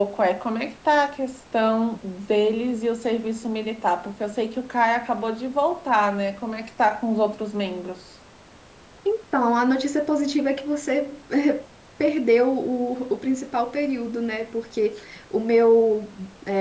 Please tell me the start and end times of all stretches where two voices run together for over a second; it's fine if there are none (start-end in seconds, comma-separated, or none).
none